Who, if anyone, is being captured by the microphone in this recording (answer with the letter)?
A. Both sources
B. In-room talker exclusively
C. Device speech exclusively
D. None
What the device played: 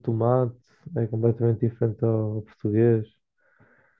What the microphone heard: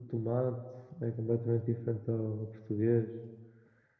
C